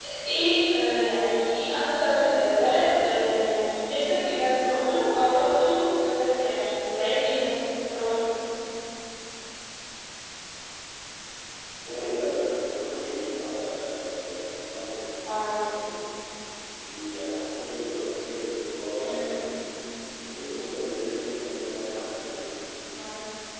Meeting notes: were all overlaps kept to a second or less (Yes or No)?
Yes